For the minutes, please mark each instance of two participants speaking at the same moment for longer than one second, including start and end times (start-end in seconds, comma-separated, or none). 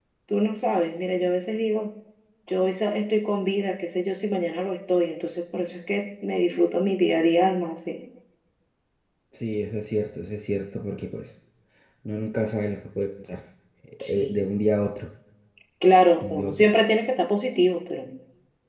none